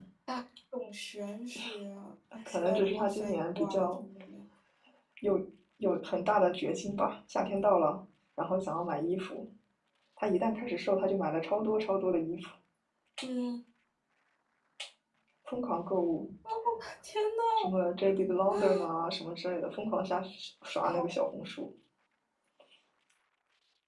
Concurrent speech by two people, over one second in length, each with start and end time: 2.5-4.0

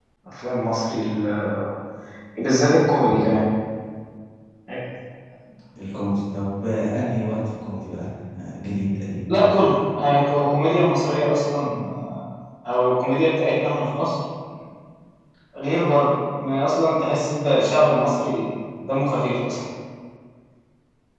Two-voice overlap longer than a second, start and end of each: none

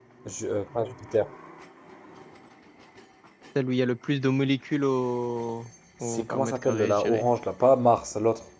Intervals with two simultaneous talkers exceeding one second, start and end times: 6.0-7.3

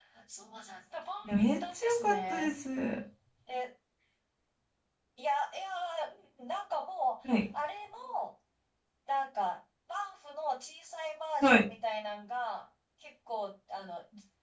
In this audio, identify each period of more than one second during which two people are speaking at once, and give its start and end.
1.2-2.5

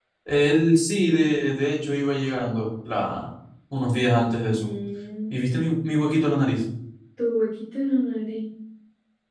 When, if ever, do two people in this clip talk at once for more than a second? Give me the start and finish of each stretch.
none

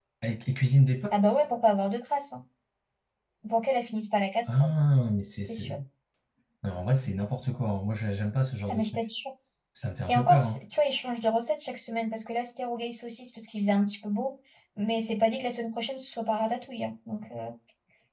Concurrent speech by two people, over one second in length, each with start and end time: none

